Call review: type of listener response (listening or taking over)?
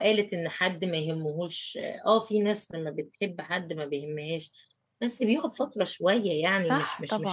listening